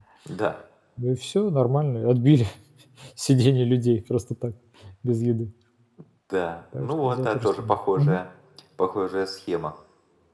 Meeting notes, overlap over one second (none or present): present